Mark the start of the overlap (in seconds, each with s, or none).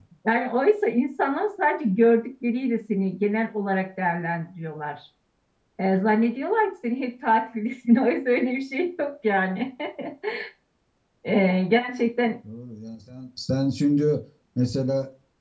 none